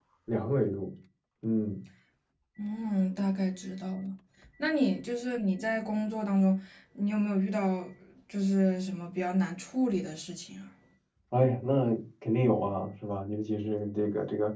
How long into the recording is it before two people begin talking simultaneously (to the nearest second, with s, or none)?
none